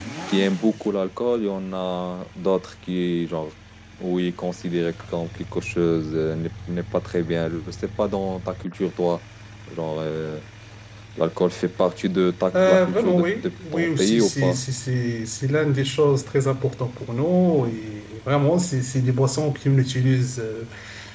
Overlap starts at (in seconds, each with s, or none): 12.5 s